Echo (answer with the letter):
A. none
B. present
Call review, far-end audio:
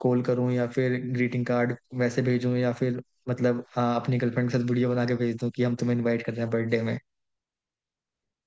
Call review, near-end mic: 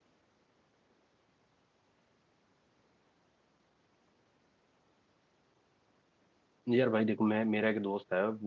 A